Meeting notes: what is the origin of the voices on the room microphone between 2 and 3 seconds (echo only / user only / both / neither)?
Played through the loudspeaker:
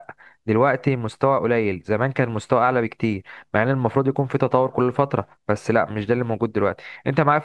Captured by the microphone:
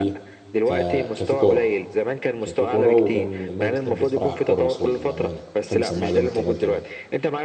both